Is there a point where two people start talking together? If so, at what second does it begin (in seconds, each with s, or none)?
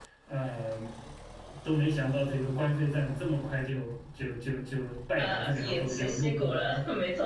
5.2 s